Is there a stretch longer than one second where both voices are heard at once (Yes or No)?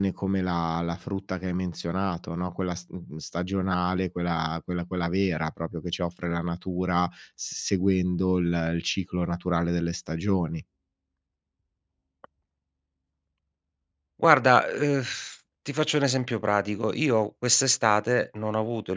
No